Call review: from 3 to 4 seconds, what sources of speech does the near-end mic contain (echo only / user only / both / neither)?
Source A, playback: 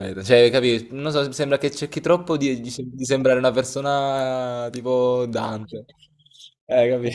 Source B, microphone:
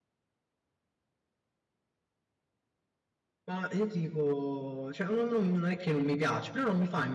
user only